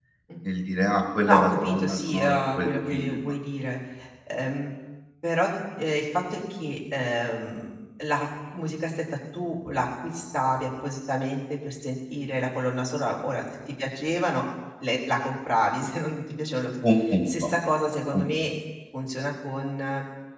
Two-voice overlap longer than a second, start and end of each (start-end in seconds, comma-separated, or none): 1.2-3.4